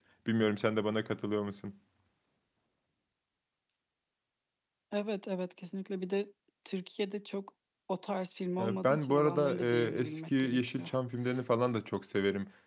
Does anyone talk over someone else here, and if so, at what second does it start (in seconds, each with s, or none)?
8.6 s